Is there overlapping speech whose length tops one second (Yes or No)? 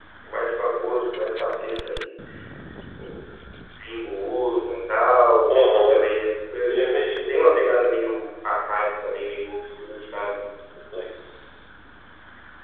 No